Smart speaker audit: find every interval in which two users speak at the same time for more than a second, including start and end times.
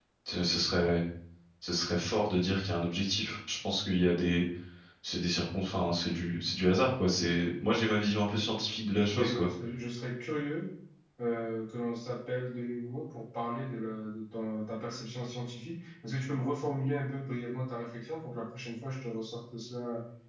none

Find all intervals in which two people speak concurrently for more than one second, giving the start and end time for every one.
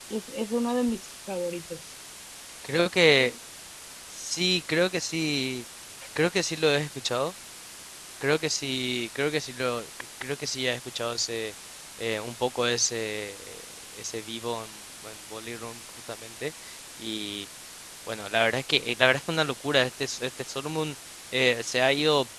none

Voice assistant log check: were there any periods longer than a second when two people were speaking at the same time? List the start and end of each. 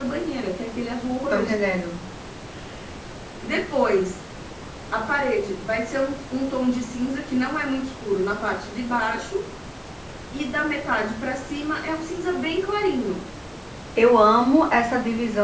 none

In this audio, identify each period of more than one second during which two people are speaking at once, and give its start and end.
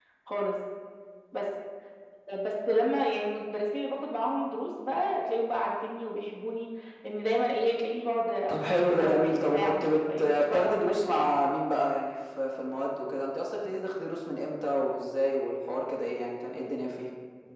8.5-11.3

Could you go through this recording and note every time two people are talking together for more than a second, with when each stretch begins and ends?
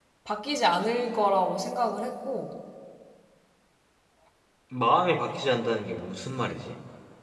none

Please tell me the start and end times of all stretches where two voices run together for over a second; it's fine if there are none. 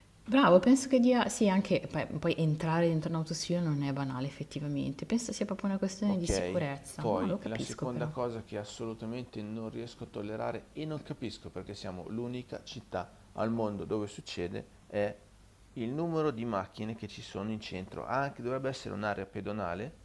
6.1-8.1

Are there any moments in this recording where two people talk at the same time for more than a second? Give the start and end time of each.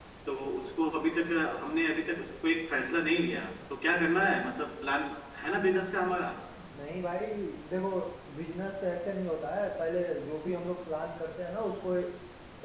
none

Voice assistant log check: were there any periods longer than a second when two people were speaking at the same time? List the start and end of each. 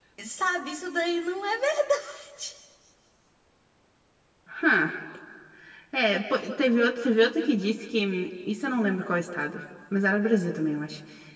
none

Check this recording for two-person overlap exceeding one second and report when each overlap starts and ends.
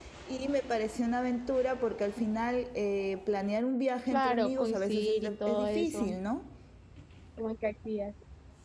4.1-6.2

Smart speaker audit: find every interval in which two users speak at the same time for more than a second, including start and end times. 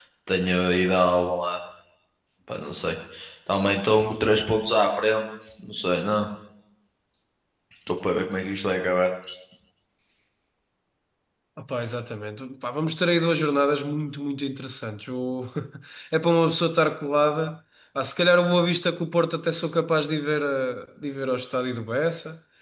none

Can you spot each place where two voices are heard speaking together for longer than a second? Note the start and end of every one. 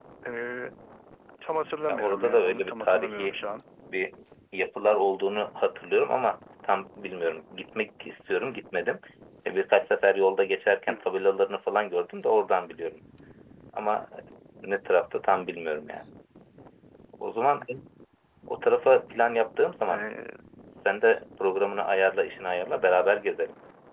1.9-3.4

